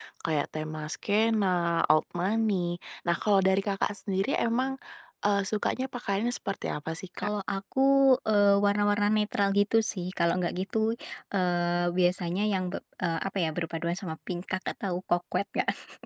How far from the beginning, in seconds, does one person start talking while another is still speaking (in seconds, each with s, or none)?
none